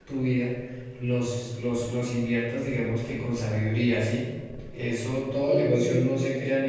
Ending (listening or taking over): listening